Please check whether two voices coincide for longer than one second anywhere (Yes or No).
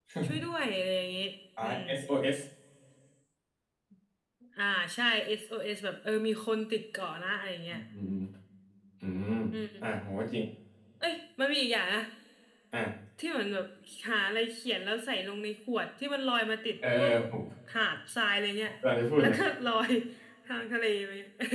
No